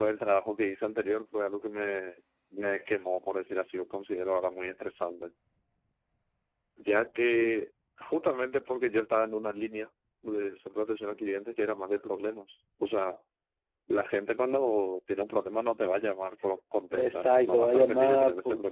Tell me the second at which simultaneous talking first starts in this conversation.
16.9 s

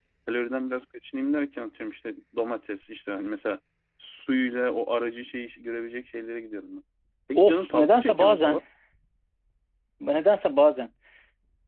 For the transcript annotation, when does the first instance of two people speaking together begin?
7.3 s

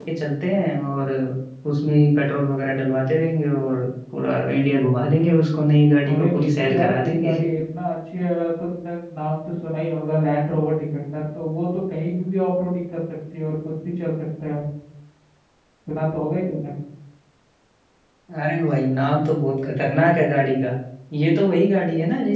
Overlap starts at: 6.0 s

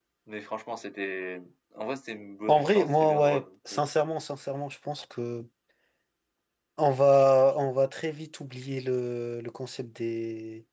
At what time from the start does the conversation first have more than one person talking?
2.5 s

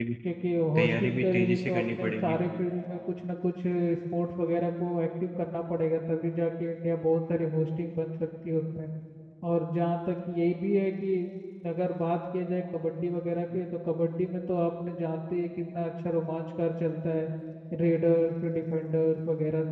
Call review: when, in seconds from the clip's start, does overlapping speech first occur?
0.8 s

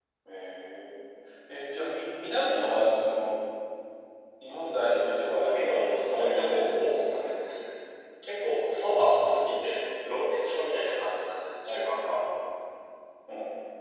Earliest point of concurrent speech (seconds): 5.4 s

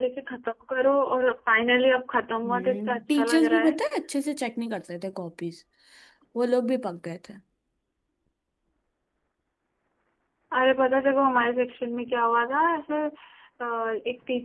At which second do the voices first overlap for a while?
2.4 s

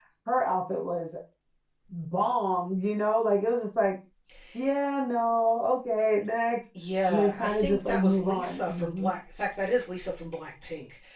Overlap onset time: 7.1 s

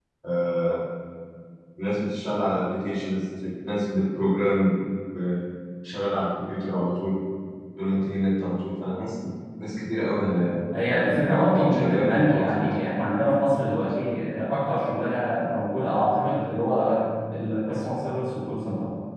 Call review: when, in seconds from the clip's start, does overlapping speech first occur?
10.7 s

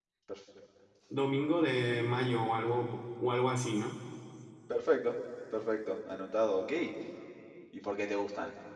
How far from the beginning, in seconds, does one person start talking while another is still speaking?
none

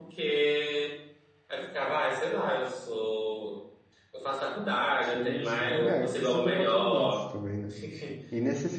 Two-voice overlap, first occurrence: 5.1 s

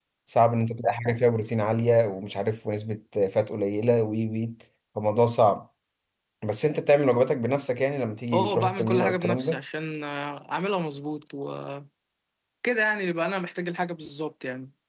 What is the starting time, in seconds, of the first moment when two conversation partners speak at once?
8.3 s

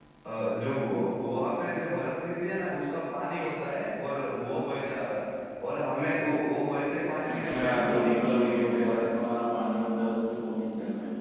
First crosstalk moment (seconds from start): 7.3 s

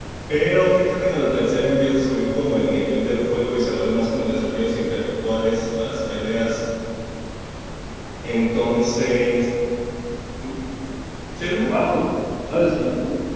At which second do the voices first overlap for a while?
none

